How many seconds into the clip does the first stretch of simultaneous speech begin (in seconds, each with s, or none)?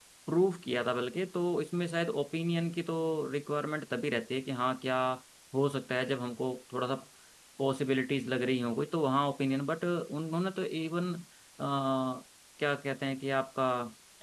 none